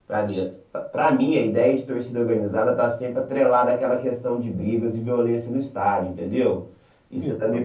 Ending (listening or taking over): listening